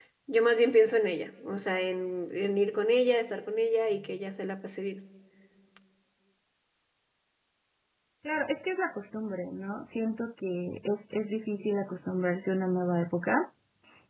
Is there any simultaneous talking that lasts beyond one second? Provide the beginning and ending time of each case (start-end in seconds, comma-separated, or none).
none